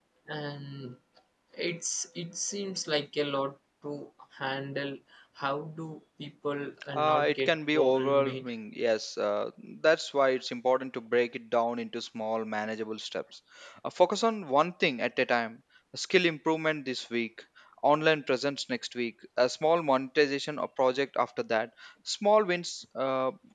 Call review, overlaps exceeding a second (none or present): present